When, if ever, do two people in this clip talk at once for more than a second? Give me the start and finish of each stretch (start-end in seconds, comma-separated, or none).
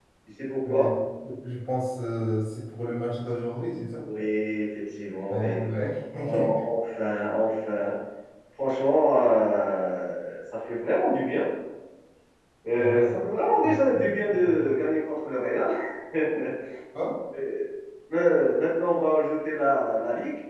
none